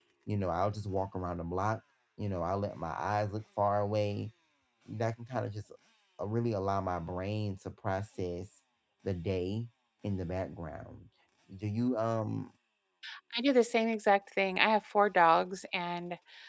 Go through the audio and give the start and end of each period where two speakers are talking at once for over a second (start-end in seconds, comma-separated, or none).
none